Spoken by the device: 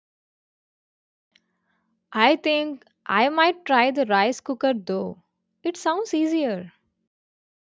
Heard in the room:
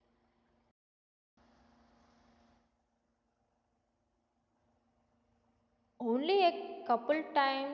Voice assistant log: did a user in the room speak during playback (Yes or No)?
Yes